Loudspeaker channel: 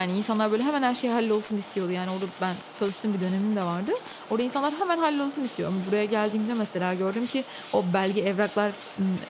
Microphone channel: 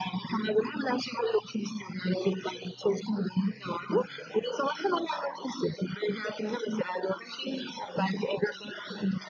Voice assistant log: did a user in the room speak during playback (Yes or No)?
No